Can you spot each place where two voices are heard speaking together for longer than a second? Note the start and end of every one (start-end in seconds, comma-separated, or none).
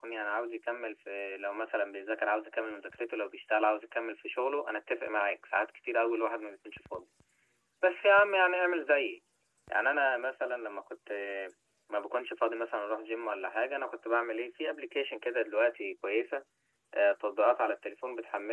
none